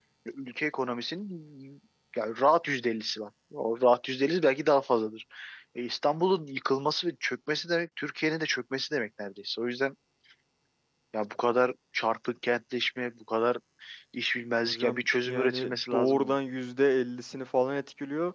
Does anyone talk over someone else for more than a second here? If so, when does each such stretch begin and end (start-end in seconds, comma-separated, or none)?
14.7-16.4